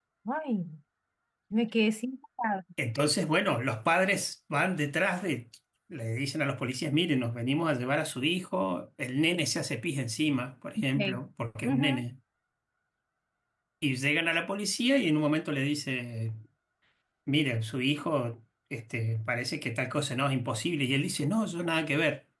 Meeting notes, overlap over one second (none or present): none